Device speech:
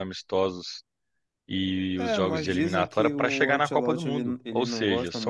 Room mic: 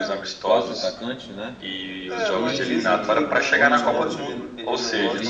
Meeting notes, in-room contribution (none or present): present